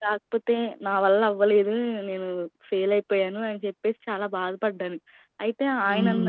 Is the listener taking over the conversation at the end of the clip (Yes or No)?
No